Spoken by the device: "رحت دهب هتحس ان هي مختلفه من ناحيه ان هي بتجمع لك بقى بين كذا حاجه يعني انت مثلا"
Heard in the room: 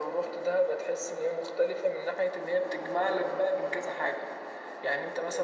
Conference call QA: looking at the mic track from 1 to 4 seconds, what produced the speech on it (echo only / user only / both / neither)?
echo only